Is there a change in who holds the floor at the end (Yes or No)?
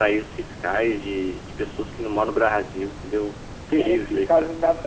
Yes